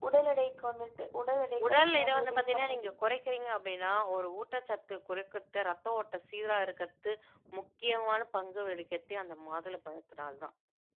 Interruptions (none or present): present